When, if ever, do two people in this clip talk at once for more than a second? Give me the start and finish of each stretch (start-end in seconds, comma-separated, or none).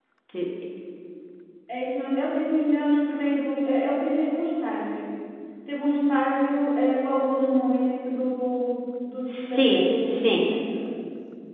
9.2-10.4